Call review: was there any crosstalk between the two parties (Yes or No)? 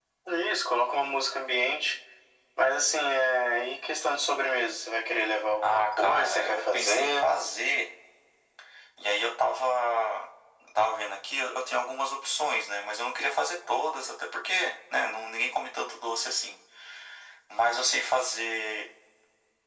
Yes